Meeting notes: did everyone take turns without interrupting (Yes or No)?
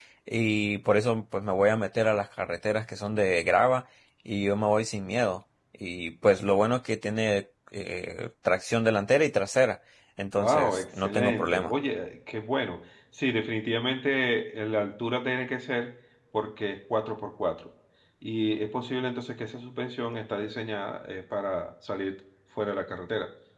No